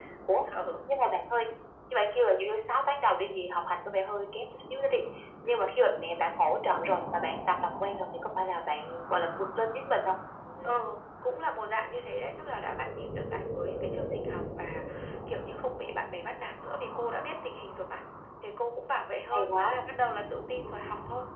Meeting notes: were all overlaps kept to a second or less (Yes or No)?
Yes